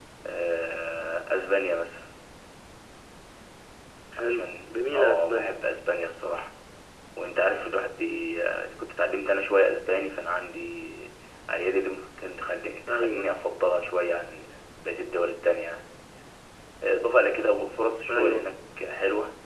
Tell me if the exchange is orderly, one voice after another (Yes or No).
No